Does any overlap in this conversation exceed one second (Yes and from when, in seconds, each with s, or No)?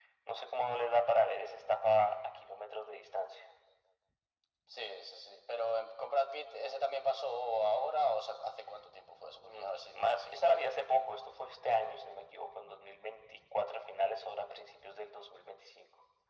Yes, from 9.4 s